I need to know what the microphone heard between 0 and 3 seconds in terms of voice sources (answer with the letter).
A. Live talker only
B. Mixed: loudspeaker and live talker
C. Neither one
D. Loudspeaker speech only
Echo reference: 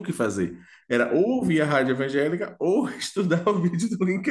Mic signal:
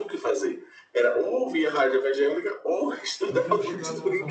D